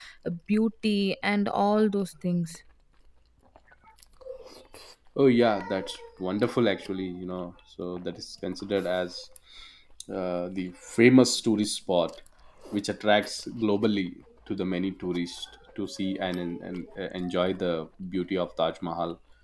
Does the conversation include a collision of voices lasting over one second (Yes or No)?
No